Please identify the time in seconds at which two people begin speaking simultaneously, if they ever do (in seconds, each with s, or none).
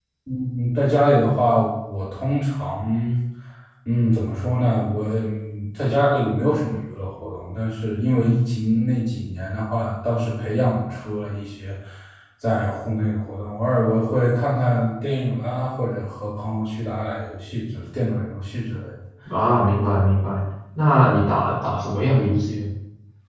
none